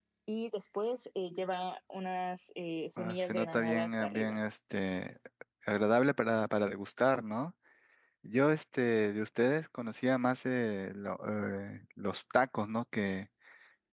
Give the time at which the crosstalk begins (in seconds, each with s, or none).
3.0 s